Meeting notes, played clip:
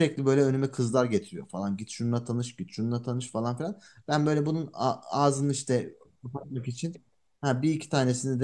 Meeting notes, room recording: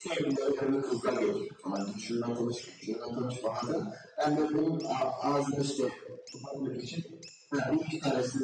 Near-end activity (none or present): none